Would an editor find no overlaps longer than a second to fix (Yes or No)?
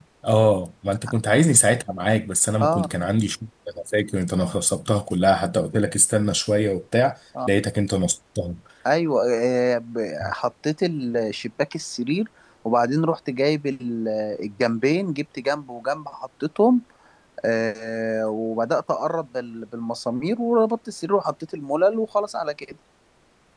Yes